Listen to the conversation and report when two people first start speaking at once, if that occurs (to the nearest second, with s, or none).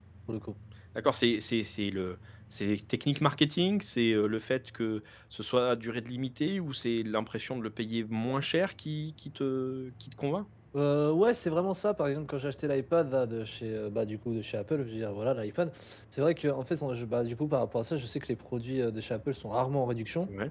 none